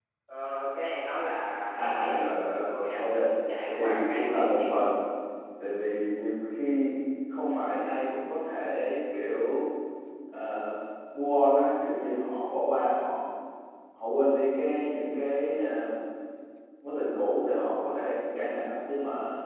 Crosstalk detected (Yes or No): Yes